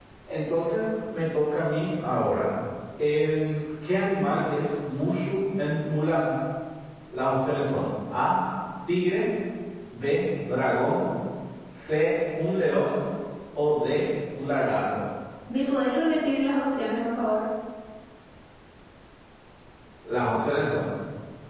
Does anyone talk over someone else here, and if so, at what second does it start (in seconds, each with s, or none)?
none